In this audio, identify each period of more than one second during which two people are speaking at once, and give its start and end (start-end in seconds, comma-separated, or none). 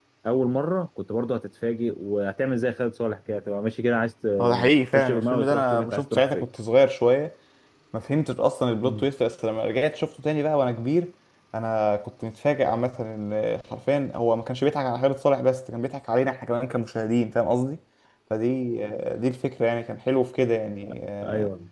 4.9-6.5